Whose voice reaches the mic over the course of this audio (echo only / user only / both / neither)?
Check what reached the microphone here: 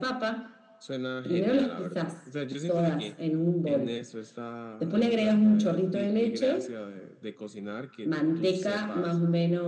echo only